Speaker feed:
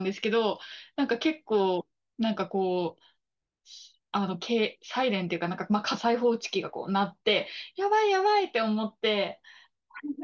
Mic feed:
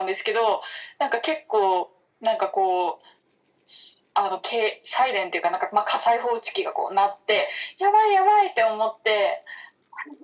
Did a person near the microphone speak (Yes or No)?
No